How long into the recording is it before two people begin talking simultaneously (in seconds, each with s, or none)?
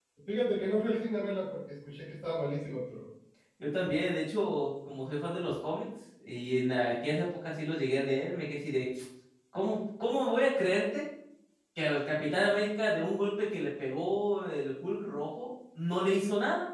none